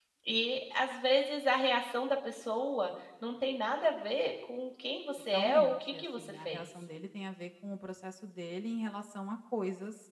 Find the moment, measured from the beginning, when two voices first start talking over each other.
5.3 s

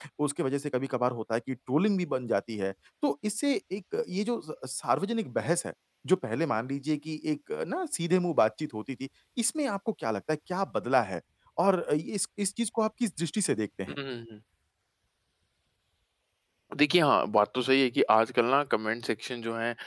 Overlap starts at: none

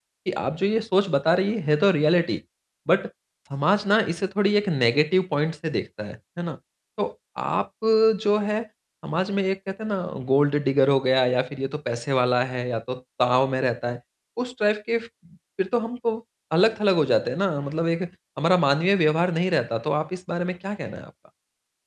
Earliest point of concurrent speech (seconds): none

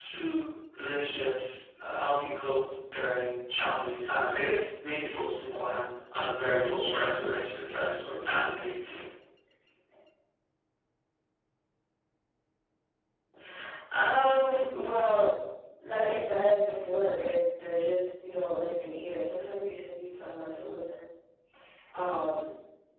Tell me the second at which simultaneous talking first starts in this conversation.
none

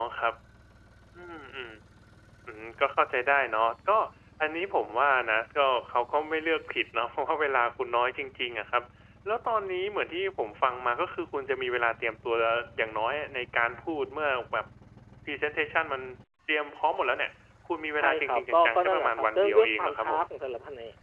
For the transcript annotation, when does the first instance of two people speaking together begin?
18.0 s

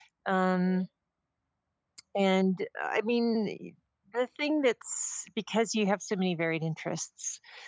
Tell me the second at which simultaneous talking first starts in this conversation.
none

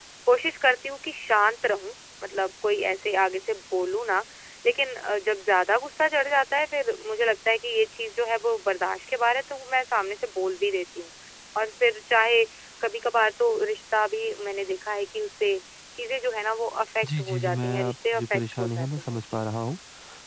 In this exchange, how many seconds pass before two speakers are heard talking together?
17.0 s

